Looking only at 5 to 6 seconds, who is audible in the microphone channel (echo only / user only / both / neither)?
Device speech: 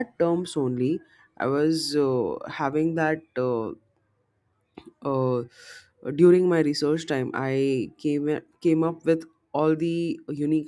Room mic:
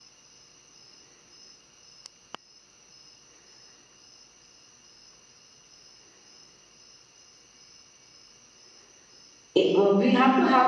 neither